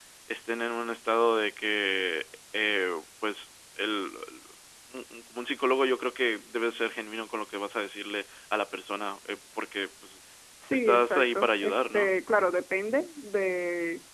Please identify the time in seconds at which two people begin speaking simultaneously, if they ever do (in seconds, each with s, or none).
10.7 s